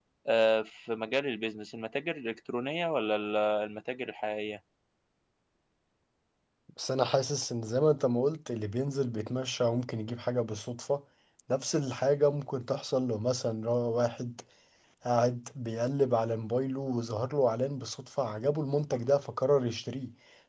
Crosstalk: none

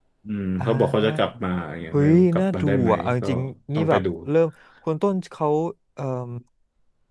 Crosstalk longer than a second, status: present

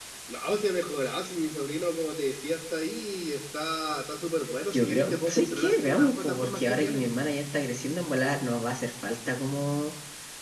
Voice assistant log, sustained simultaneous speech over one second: present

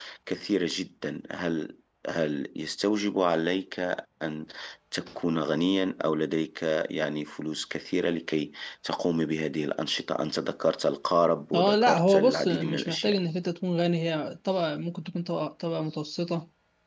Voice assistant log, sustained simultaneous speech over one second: present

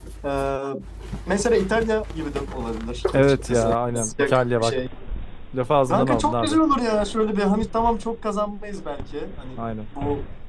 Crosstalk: present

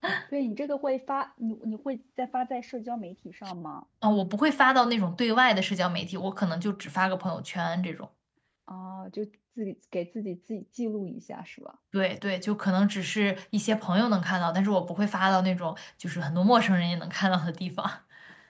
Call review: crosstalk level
none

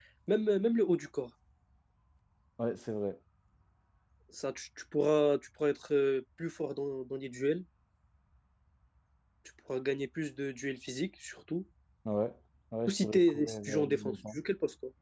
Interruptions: present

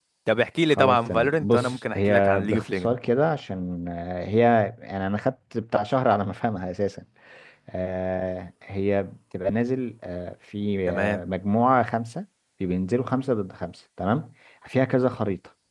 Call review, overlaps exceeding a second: present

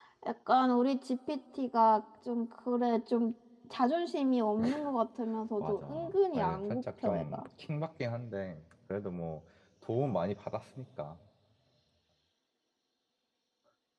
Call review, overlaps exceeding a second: present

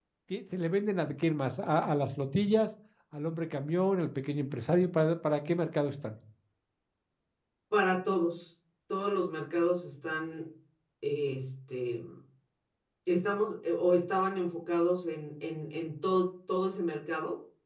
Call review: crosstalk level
none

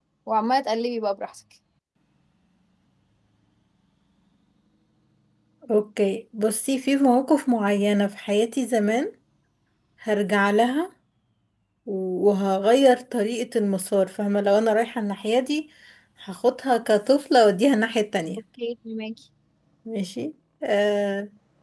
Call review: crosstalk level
none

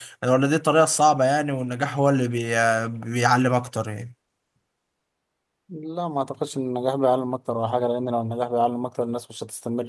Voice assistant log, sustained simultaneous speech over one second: none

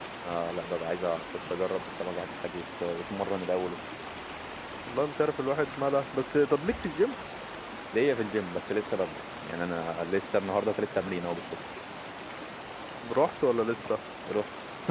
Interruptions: none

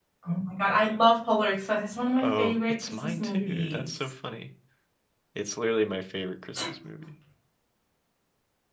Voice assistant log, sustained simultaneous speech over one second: present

